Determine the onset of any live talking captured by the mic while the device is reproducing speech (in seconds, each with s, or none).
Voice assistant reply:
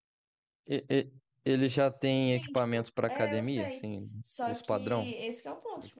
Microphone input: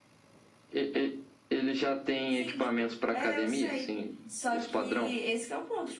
none